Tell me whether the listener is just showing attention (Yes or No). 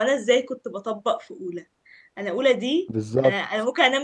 Yes